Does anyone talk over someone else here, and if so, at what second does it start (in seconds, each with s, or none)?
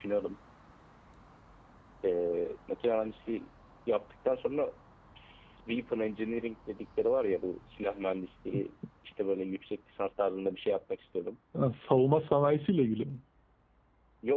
none